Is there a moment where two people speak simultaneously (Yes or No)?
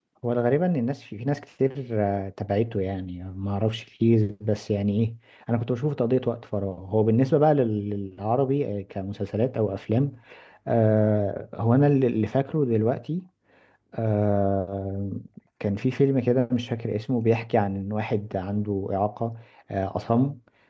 No